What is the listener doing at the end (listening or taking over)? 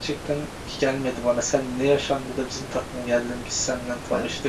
taking over